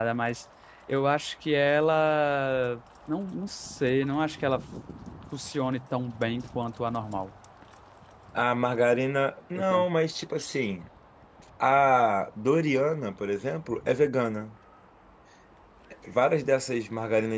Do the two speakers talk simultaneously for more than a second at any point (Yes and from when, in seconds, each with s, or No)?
No